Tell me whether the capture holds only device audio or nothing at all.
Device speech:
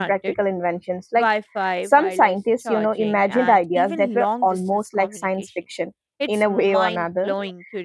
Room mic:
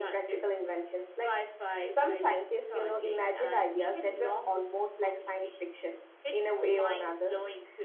Yes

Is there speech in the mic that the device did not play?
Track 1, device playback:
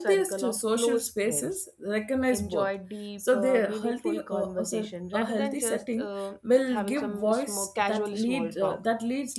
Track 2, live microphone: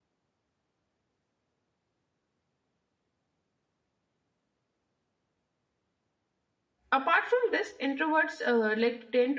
Yes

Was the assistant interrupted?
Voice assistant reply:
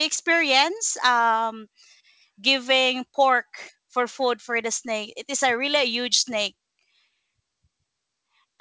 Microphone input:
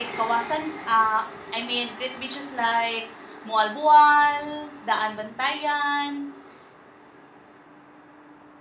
Yes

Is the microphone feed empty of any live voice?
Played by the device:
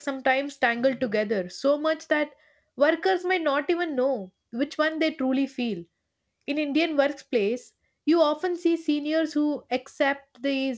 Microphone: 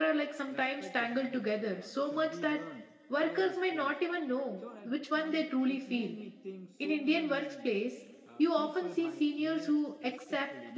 No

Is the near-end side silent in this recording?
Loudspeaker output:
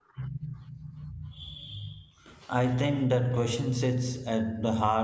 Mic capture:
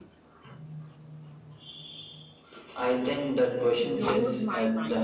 No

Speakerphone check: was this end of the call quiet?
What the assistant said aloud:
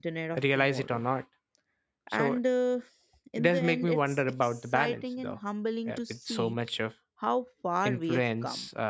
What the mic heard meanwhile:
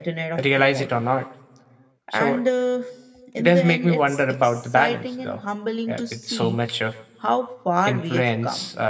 Yes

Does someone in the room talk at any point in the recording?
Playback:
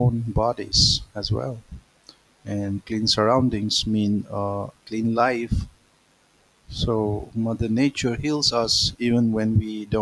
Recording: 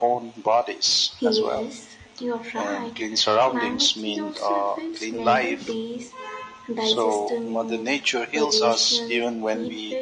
Yes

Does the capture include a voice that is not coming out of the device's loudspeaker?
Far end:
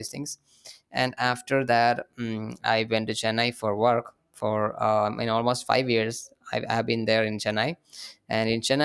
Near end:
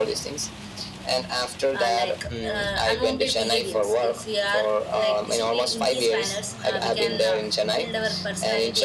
Yes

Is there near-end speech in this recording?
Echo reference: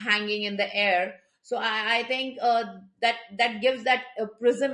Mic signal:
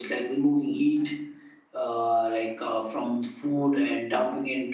Yes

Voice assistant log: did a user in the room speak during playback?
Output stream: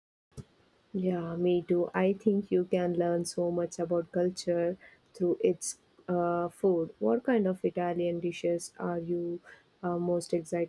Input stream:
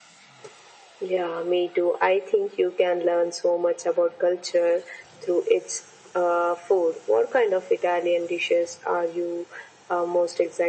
No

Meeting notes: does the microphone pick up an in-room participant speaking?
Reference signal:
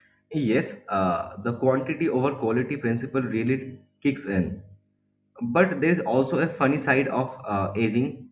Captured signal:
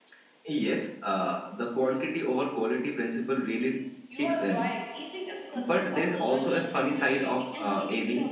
Yes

